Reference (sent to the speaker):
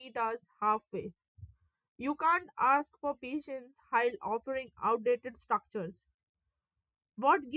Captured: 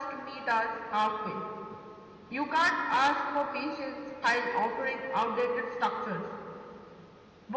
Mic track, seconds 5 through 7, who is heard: echo only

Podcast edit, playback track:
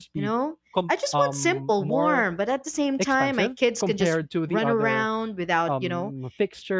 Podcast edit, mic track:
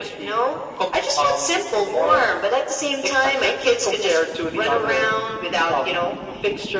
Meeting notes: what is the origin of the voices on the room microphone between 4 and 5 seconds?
echo only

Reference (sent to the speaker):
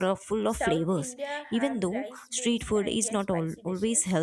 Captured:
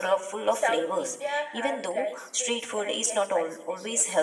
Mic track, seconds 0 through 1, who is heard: echo only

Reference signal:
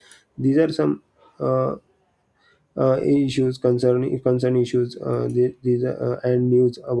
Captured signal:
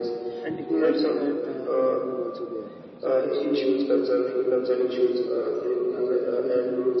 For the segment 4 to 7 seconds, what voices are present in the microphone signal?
both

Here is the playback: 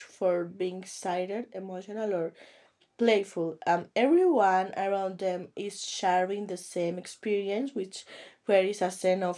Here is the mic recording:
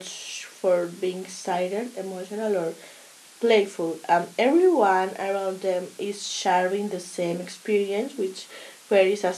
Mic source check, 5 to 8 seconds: echo only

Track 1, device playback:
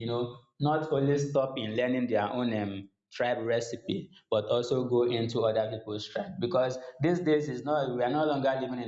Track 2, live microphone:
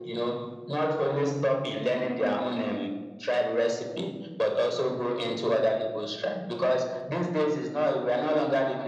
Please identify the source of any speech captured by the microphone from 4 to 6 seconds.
echo only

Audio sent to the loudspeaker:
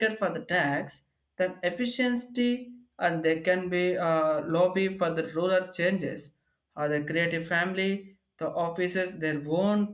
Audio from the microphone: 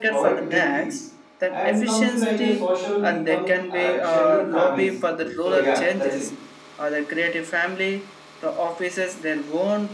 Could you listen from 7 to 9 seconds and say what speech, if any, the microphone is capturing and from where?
echo only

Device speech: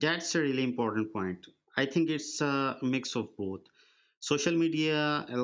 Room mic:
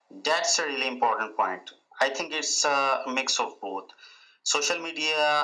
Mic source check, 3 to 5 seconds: echo only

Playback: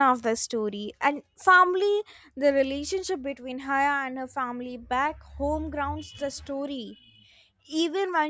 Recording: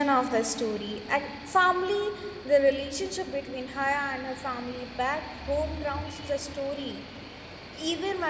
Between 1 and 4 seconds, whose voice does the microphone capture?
echo only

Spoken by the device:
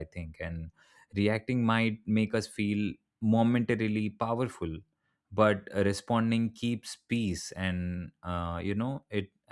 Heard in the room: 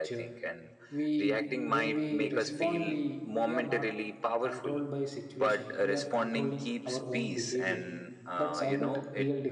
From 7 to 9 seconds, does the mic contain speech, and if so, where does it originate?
both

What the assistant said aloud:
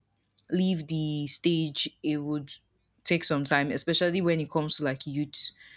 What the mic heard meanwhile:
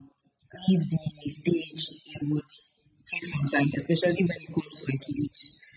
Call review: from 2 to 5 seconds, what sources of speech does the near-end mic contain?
echo only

